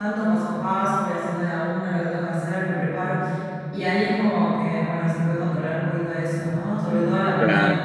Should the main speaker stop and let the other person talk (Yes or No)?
Yes